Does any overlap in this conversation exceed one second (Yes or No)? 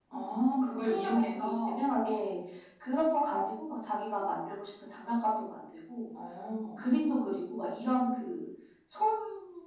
Yes